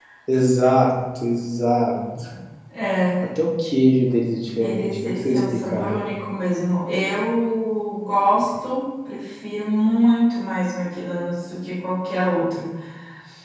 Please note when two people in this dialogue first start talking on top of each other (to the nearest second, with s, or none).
5 s